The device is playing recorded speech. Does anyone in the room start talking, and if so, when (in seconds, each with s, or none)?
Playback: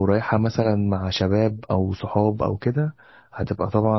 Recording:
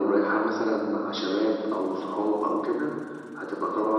none